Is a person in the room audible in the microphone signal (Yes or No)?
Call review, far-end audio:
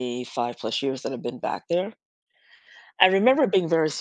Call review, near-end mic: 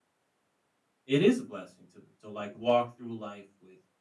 Yes